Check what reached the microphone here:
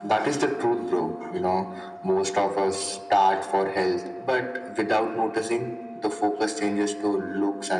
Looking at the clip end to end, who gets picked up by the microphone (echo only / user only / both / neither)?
echo only